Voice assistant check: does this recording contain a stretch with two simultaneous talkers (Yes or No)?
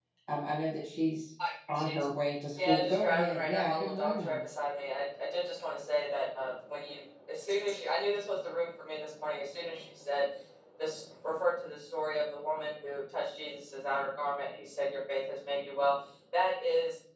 Yes